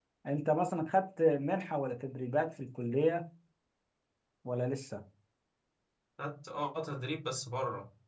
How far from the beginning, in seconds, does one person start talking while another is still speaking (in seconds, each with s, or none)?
none